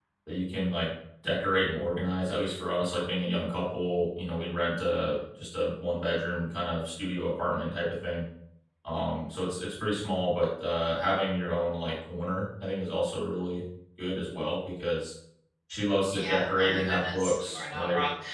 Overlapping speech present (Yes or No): Yes